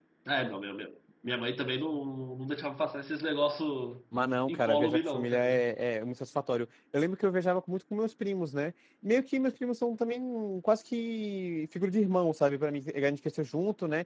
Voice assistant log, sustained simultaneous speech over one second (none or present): present